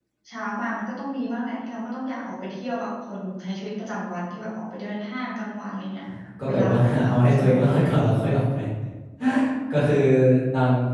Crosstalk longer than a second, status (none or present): present